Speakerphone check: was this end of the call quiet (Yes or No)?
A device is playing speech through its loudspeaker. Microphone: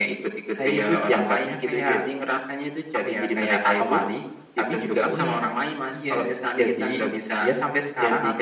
No